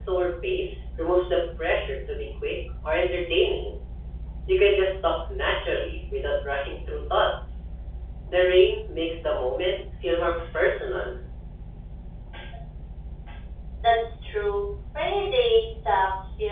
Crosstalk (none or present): none